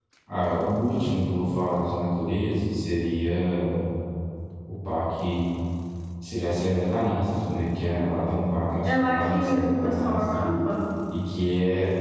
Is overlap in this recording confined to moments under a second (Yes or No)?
No